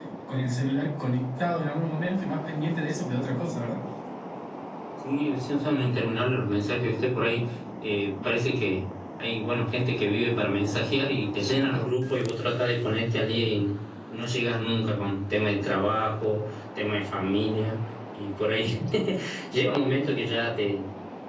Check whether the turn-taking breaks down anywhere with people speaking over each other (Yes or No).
No